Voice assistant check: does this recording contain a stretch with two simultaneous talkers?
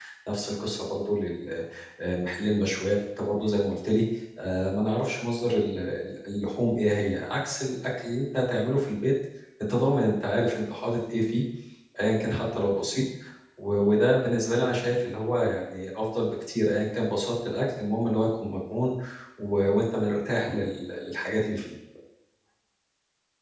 No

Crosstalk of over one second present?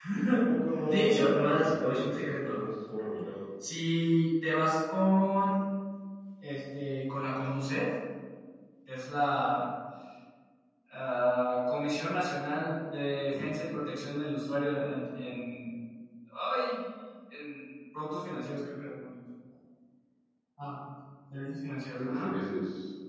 Yes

